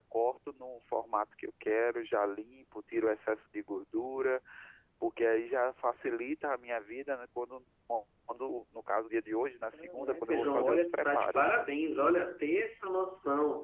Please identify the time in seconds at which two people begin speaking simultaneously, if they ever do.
10 s

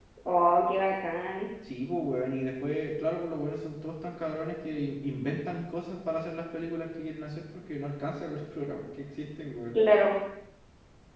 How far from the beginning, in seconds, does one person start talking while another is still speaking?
none

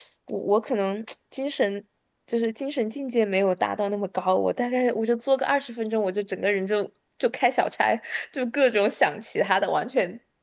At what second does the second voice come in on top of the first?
none

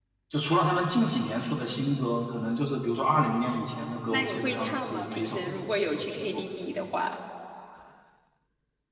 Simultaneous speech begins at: 4 s

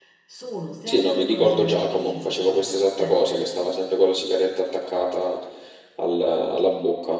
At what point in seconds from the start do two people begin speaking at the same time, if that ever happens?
1 s

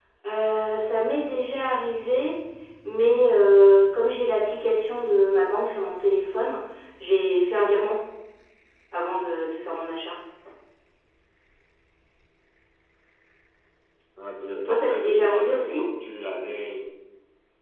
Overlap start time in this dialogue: 15 s

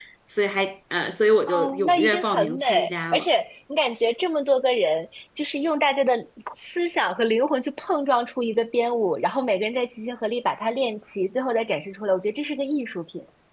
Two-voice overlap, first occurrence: 1 s

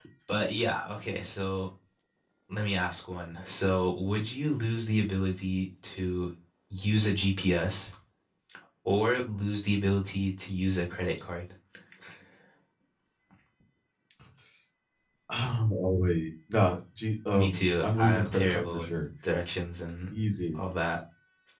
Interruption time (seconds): 17 s

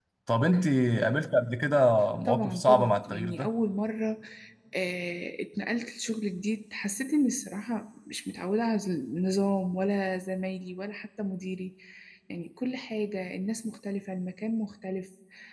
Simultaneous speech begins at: 2 s

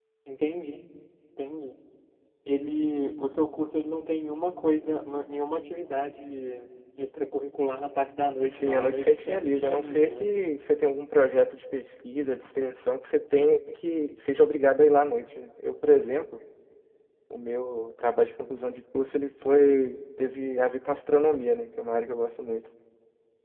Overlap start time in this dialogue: 8 s

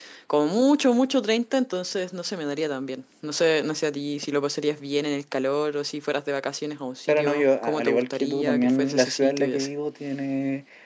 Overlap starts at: 7 s

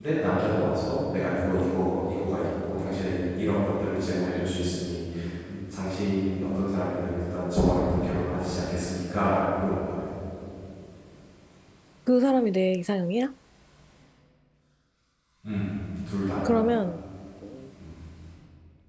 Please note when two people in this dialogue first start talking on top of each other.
none

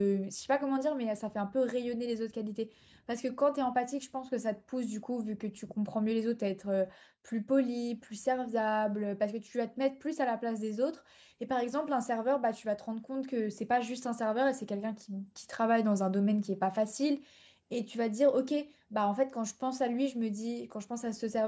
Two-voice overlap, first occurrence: none

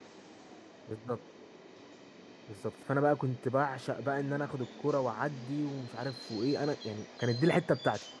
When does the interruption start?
none

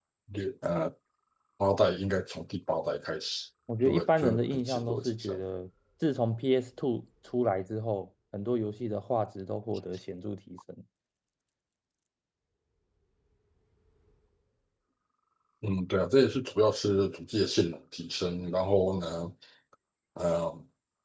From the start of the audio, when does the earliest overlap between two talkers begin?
4 s

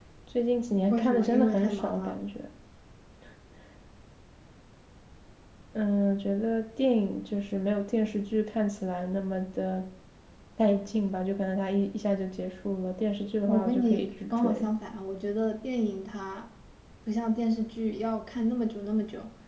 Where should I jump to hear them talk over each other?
1 s

